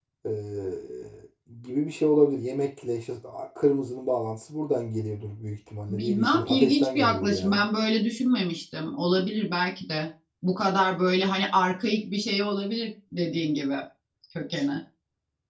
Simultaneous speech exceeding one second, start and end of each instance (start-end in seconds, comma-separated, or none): 5.9-7.6